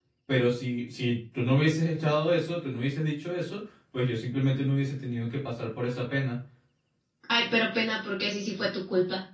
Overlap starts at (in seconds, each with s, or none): none